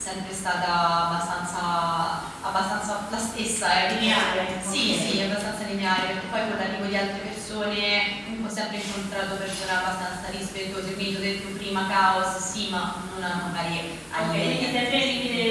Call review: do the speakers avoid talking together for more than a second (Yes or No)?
No